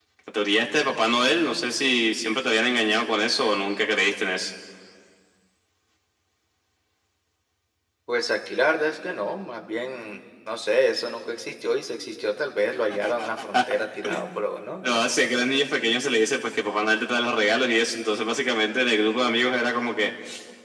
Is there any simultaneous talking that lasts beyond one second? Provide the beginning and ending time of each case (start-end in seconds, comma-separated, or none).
none